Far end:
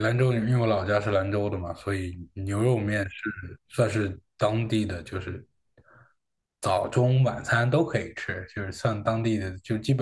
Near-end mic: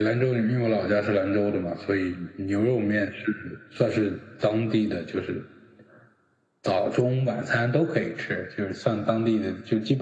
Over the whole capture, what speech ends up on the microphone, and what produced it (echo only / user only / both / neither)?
echo only